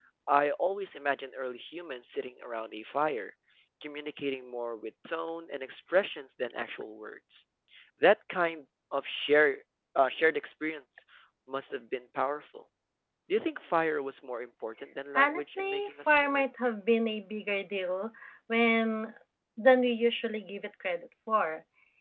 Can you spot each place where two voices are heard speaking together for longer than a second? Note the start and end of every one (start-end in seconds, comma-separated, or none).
15.1-16.4